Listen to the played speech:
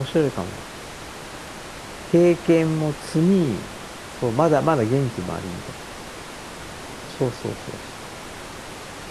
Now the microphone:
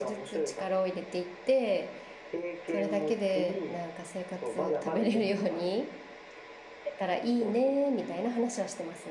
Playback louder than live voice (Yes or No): No